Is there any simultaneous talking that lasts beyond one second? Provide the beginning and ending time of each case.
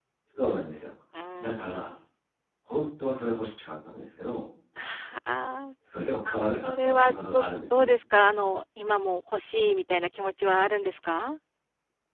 6.6-7.9

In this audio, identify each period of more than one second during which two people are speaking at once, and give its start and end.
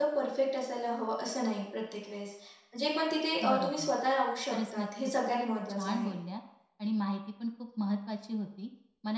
4.5-6.1

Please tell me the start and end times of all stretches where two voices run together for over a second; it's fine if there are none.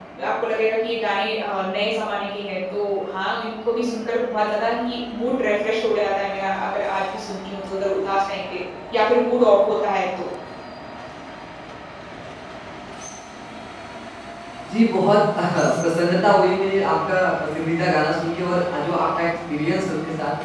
none

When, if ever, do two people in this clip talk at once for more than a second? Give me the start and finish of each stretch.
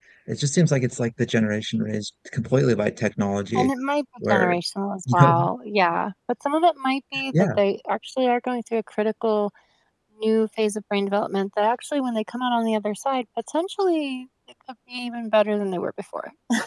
none

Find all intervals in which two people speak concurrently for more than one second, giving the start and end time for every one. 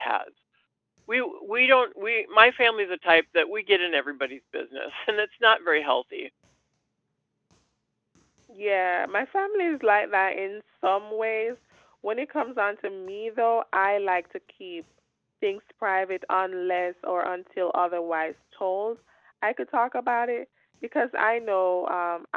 none

